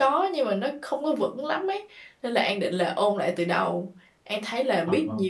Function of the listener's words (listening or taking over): listening